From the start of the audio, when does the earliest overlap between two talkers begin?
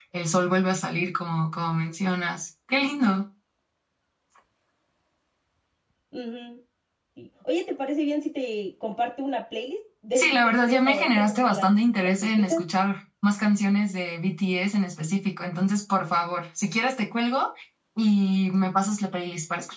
10.2 s

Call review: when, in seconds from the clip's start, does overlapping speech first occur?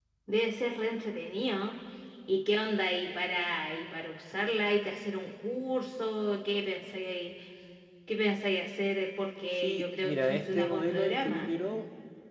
9.6 s

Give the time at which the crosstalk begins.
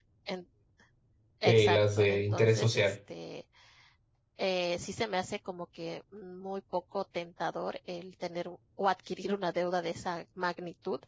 1.5 s

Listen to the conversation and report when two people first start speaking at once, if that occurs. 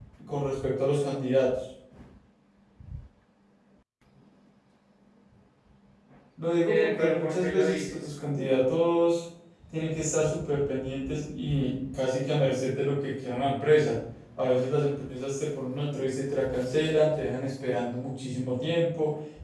6.6 s

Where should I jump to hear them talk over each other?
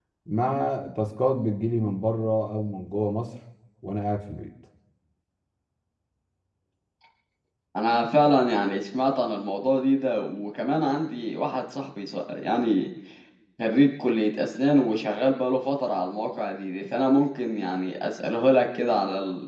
none

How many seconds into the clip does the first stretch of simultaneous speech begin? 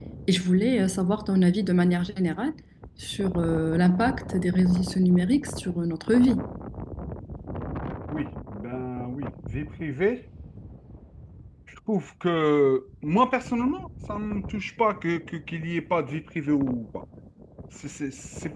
none

